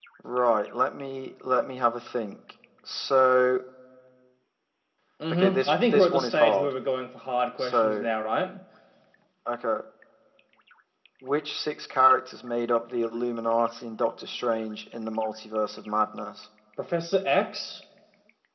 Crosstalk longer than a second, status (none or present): present